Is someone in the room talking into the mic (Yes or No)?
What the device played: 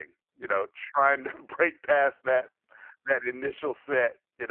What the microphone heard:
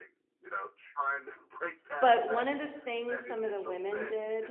Yes